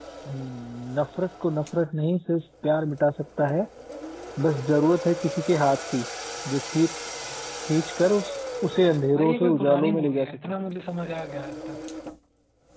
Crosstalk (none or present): present